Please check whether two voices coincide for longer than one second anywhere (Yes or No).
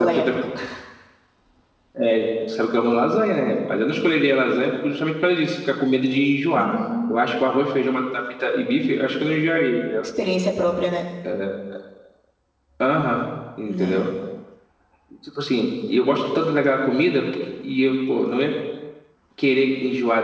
No